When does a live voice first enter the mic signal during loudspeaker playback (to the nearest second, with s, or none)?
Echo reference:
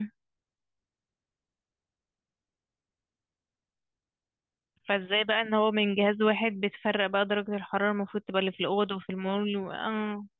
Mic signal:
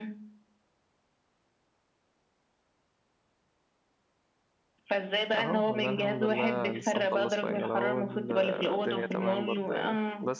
5 s